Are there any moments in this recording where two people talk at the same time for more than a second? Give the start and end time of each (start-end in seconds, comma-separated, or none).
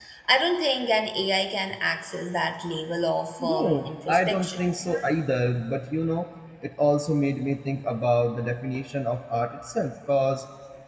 3.4-4.7